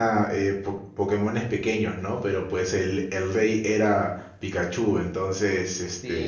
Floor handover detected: Yes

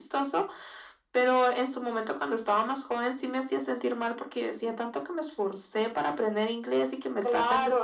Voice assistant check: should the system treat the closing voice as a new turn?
Yes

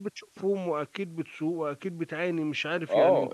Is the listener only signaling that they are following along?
No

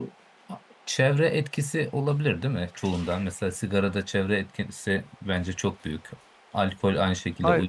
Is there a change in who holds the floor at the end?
No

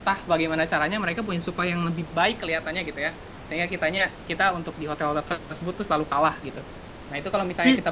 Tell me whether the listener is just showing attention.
Yes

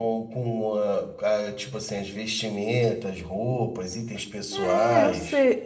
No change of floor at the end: No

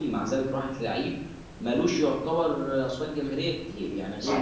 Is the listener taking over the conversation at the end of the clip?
No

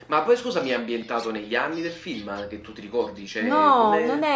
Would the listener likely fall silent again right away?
No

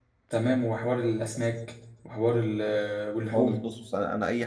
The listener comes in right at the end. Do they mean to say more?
Yes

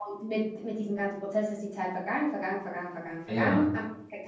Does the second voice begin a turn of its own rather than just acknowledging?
No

